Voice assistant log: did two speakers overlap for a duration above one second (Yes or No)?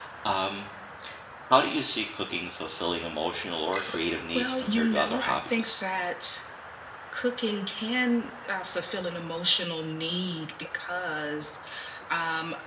Yes